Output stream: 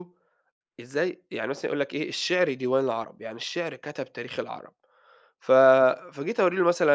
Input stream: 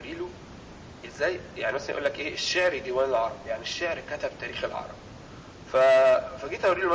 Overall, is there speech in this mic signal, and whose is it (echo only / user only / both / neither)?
echo only